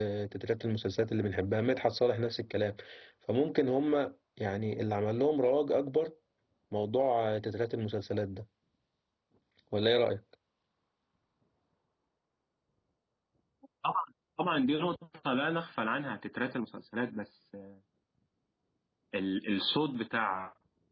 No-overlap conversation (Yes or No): Yes